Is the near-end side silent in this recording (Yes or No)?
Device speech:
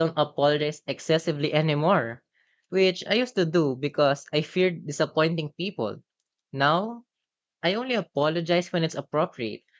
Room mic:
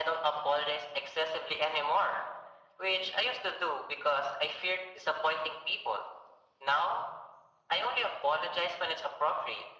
Yes